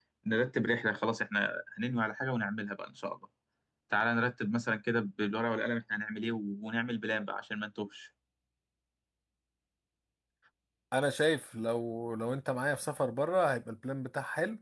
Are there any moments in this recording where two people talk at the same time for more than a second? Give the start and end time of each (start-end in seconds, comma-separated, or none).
none